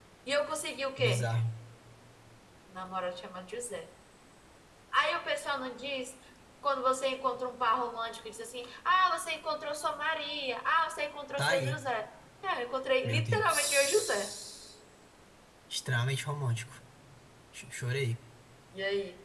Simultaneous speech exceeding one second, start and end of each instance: 13.0-14.3

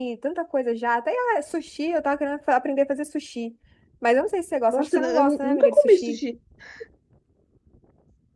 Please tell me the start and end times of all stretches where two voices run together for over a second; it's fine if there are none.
4.7-6.2

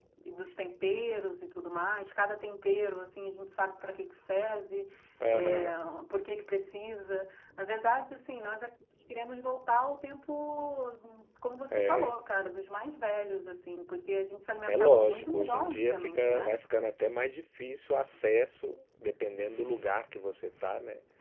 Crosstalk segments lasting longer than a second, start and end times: 14.7-16.6

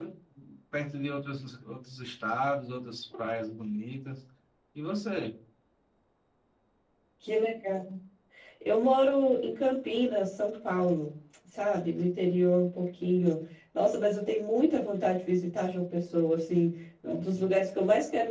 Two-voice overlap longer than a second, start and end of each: none

